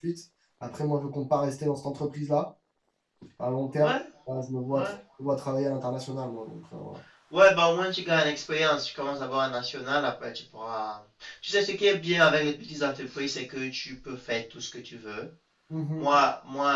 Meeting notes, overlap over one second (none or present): none